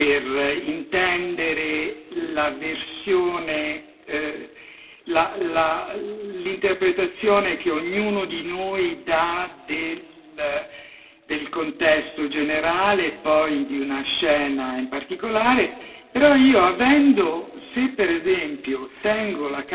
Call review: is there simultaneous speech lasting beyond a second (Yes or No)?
No